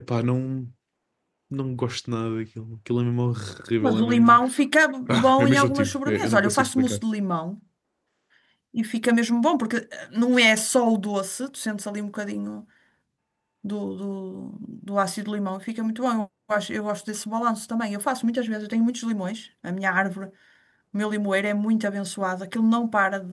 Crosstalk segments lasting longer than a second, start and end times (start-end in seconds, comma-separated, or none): 5.1-7.0